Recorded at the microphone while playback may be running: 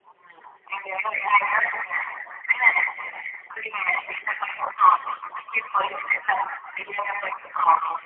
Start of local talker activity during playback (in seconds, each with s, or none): none